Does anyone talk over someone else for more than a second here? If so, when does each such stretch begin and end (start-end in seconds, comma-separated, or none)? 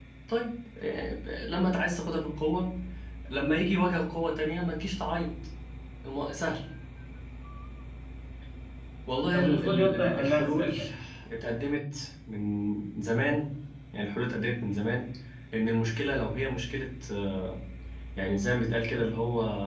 9.3-10.7